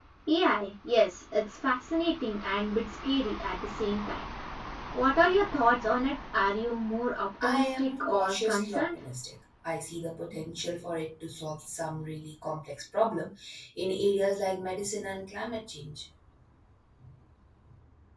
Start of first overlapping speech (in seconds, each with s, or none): 7.4 s